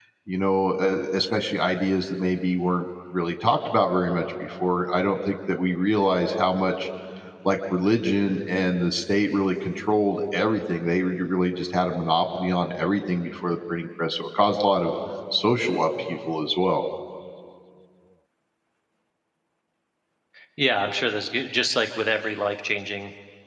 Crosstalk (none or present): none